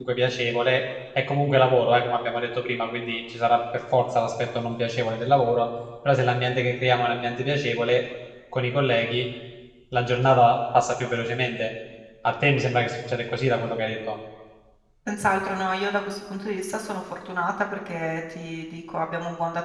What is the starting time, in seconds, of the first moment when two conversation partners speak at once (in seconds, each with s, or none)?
none